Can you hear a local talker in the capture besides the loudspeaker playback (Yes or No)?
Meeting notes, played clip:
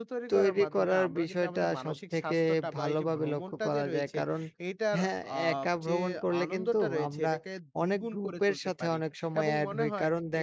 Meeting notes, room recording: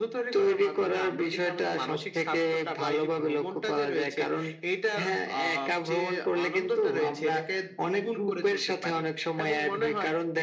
No